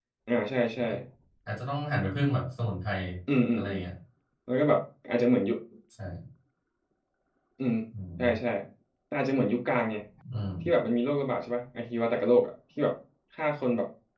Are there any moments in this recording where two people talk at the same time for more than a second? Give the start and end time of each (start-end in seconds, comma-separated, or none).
none